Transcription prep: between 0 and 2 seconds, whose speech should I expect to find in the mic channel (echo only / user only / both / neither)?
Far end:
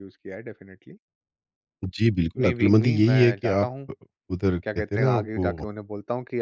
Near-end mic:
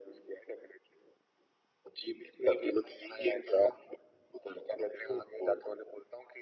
echo only